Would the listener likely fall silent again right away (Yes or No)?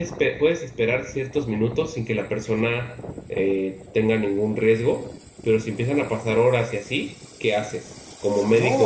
No